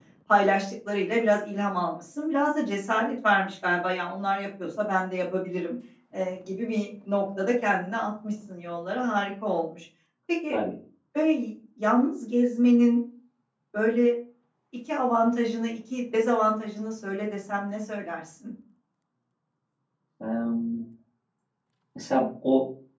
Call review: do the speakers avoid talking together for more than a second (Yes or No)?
Yes